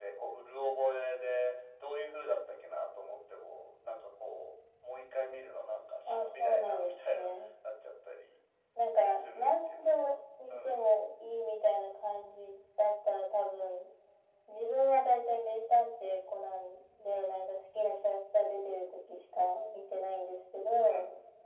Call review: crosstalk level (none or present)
present